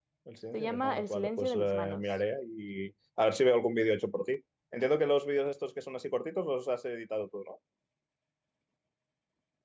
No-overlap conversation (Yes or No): No